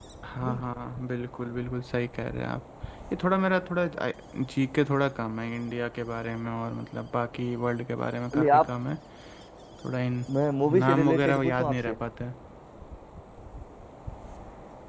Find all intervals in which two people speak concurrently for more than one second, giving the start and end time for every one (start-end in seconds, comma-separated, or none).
10.7-12.0